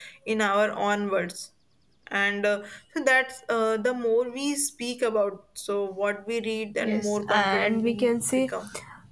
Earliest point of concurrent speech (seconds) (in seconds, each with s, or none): 6.8 s